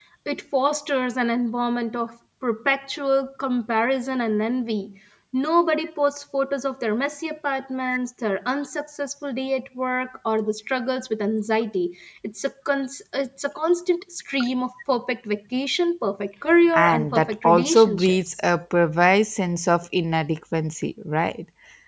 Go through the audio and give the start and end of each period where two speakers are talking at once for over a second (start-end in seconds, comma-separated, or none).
16.7-18.3